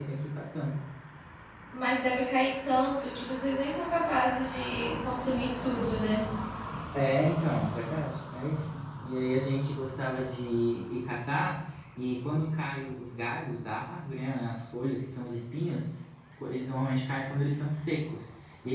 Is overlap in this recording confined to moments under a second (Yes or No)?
Yes